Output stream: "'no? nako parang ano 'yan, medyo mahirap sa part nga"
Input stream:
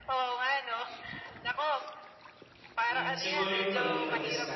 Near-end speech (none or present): present